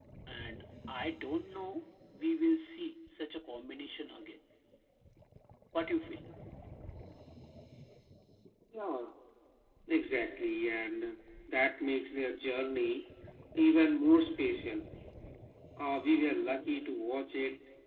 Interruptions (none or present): none